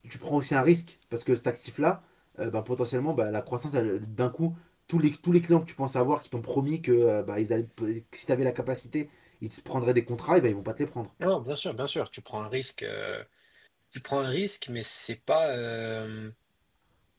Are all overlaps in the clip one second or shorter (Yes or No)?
Yes